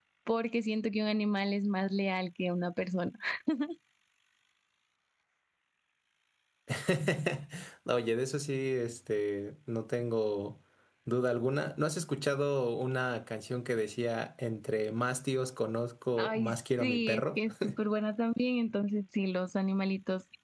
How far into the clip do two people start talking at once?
16.2 s

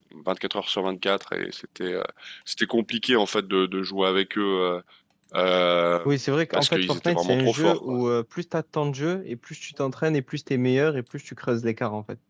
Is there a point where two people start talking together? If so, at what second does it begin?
6.5 s

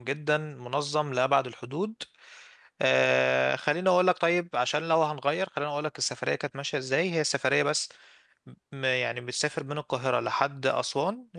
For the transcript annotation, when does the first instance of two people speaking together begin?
none

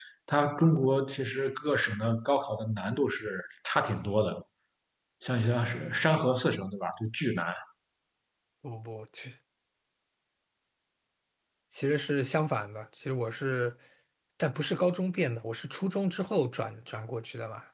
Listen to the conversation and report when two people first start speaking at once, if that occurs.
none

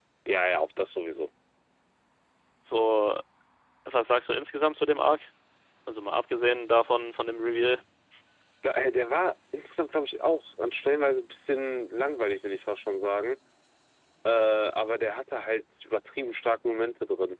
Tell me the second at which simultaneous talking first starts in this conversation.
none

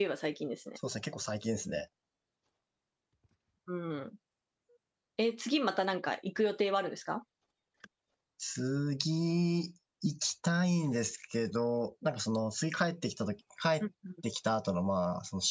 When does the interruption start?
none

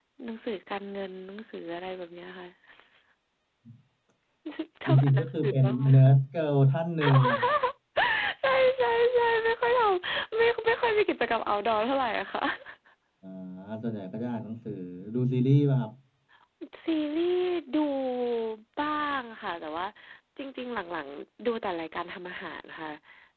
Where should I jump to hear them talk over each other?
4.9 s

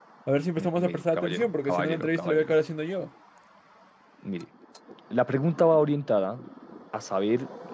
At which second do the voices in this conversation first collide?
0.6 s

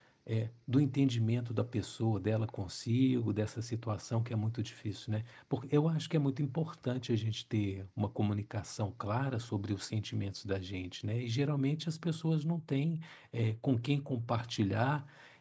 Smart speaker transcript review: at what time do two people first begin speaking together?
none

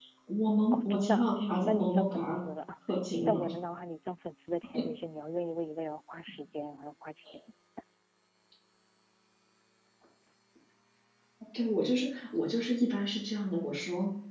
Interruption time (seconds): 0.7 s

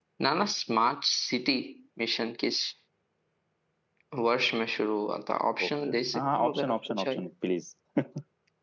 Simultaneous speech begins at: 5.6 s

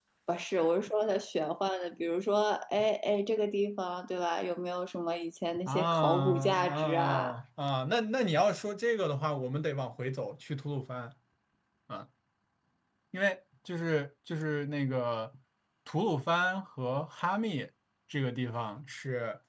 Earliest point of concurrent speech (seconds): 5.7 s

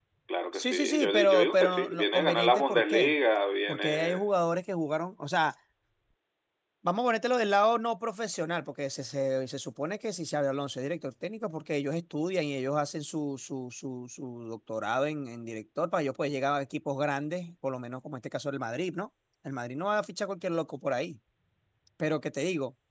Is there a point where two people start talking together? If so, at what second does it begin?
0.5 s

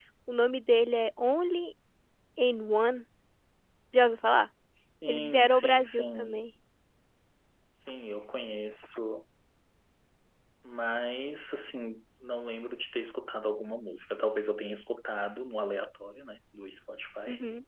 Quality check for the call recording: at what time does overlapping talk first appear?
5.1 s

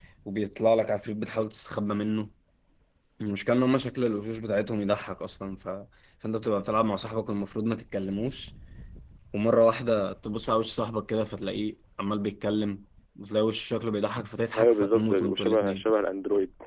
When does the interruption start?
14.5 s

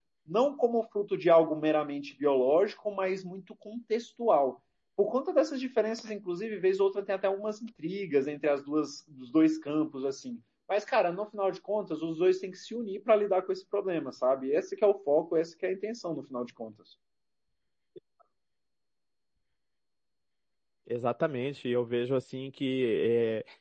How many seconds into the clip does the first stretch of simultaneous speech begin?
none

